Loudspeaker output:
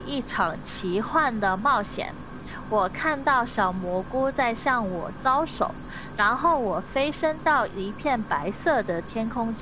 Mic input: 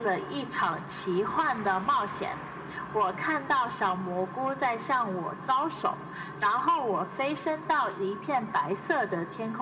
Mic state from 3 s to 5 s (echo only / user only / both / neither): echo only